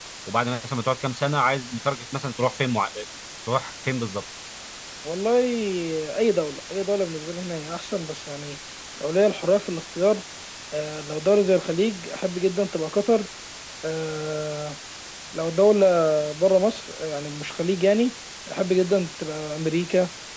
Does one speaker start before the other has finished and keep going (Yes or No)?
No